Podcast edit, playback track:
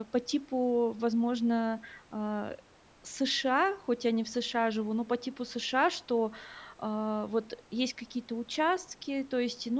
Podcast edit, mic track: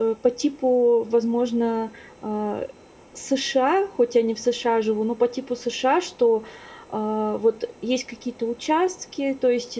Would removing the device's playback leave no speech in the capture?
Yes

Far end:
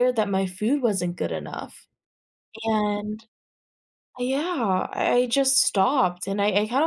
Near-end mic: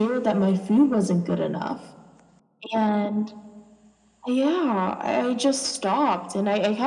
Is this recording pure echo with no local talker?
Yes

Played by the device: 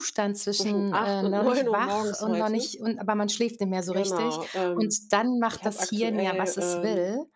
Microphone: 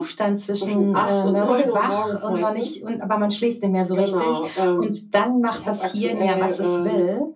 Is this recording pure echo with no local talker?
Yes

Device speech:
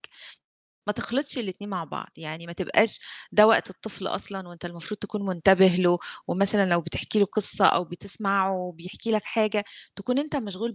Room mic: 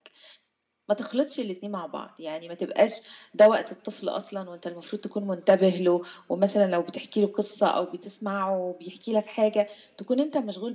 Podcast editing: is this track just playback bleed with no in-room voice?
Yes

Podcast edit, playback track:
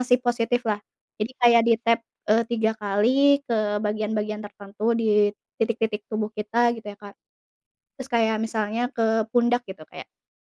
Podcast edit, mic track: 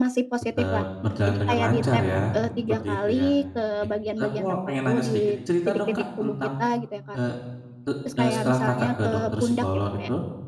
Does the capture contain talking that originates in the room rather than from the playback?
Yes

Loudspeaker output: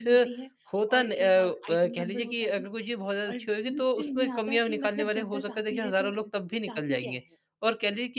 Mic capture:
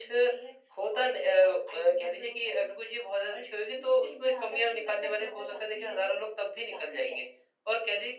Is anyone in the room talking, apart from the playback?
No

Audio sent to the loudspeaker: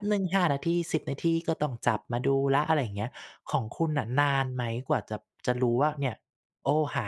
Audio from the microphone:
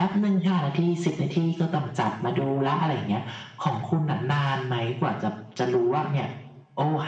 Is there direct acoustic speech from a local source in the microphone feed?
No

